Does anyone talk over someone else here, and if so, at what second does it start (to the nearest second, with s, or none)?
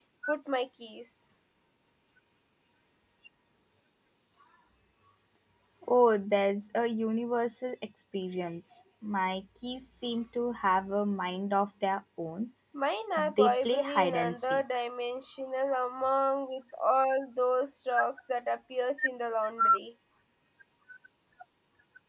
13 s